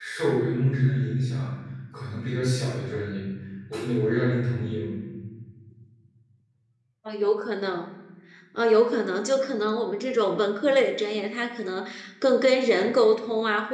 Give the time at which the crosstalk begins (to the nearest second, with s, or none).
none